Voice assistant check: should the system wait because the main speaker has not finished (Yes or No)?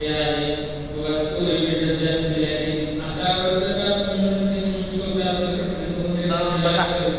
No